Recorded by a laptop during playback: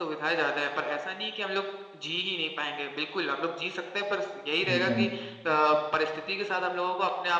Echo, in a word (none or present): present